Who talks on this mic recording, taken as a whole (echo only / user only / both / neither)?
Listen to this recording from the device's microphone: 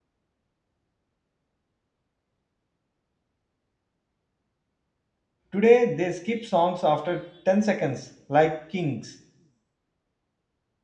user only